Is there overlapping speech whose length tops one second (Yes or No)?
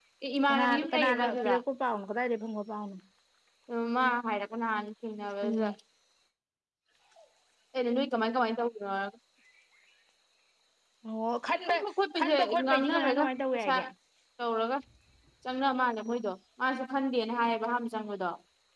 Yes